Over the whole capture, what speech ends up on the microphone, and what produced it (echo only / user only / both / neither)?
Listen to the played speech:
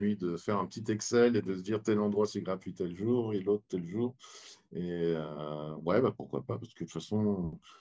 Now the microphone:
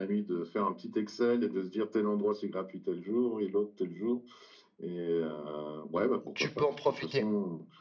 both